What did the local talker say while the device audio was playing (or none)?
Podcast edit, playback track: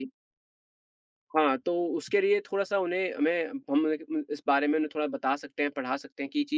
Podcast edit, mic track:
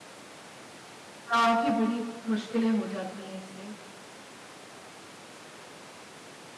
काफ़ी बड़ी मुश्किलें हो जाती हैं इससे।